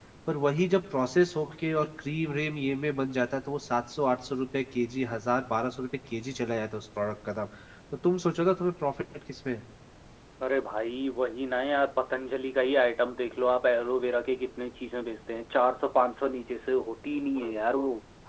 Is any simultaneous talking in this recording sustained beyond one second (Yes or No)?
No